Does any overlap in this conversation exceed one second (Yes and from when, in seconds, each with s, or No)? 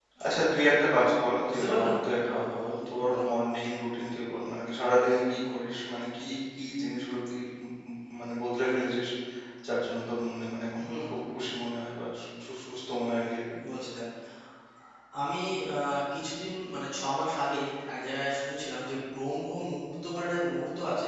No